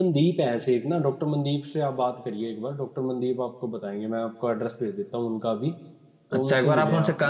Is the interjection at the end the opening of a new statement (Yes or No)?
Yes